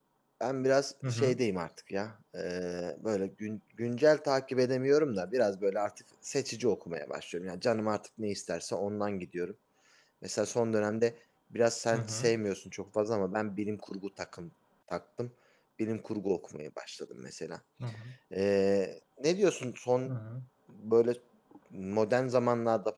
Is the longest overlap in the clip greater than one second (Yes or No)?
No